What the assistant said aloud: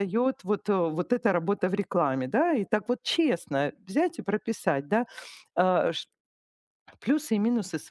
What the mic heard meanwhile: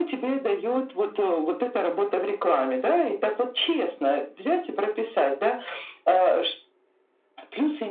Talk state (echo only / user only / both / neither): echo only